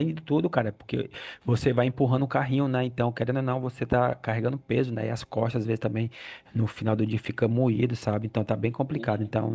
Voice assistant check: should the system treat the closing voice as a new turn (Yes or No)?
No